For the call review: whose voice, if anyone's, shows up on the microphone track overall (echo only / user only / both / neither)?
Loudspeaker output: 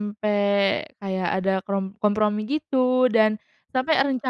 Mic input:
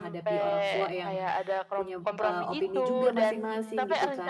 both